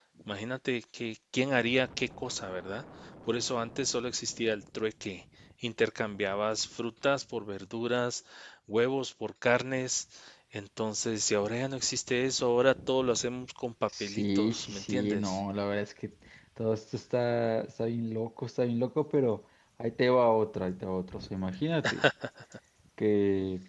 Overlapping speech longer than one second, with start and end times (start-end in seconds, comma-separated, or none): 14.0-15.4